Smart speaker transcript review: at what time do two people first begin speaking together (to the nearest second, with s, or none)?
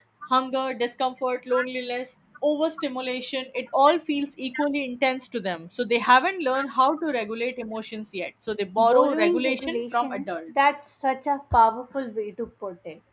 9 s